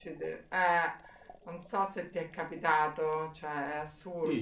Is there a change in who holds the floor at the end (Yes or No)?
Yes